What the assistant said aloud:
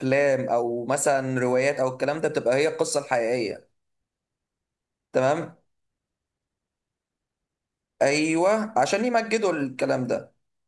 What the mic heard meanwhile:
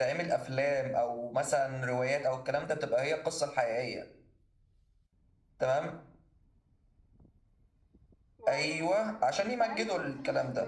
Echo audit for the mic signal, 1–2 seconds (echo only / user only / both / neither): echo only